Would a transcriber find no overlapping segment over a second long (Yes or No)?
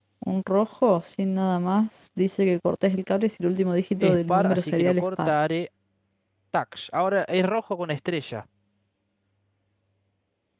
No